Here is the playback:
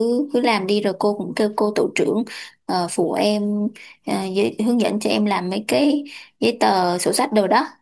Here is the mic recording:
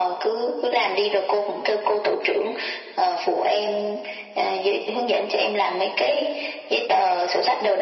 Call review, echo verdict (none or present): present